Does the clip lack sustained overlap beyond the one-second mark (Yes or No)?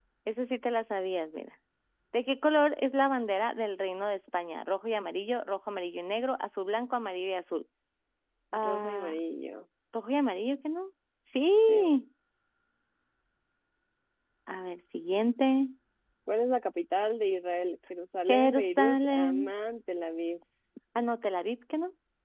No